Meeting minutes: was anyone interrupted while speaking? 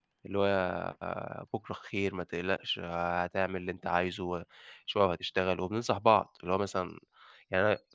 No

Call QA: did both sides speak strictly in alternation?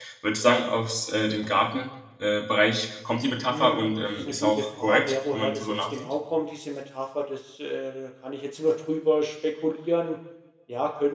No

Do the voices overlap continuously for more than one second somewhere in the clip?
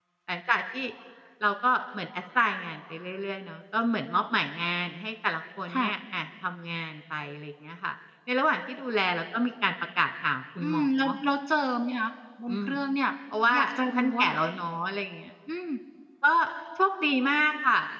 No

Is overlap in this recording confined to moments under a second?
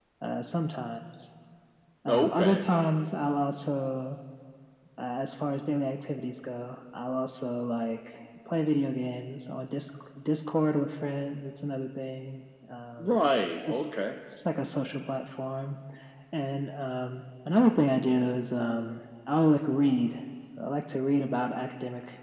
Yes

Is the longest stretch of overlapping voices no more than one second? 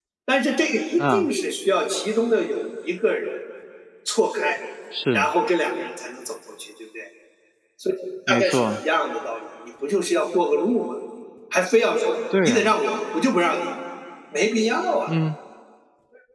Yes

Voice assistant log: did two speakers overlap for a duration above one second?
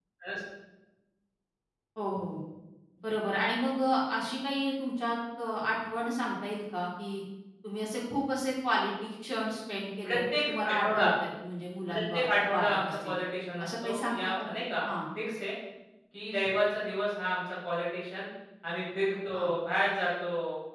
Yes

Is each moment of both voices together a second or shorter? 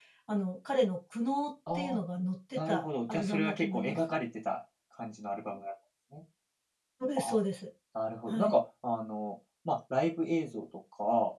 No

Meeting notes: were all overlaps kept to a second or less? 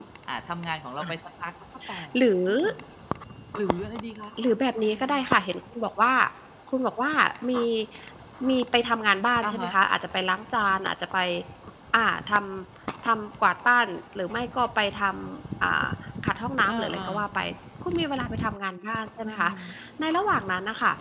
Yes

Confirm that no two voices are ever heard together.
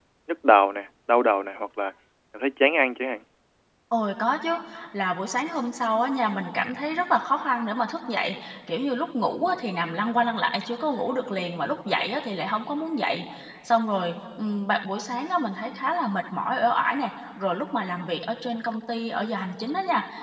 Yes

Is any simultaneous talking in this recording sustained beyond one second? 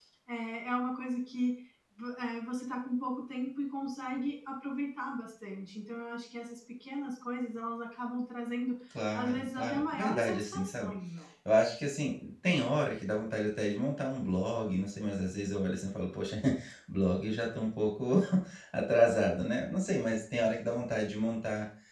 Yes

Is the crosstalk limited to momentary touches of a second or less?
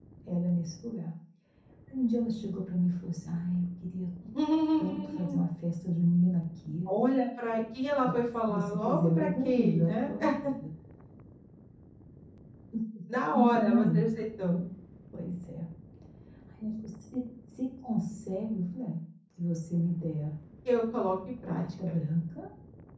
No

